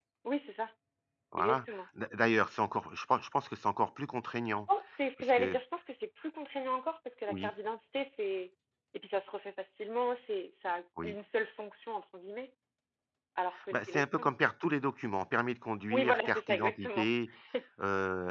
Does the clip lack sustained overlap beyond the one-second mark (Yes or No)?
No